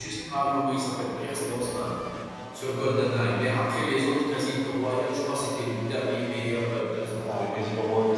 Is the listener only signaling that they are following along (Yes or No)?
No